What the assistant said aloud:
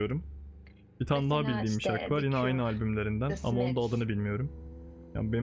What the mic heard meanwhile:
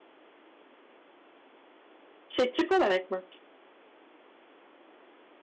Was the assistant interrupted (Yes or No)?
Yes